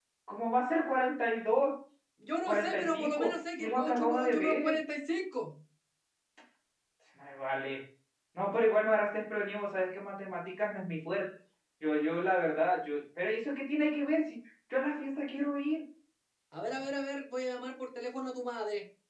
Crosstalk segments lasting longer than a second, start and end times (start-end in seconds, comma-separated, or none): 2.4-4.8